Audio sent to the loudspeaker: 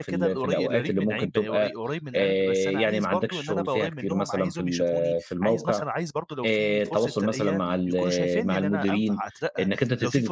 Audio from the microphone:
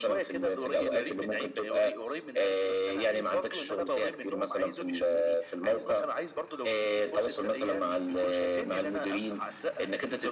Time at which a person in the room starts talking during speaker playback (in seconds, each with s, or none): none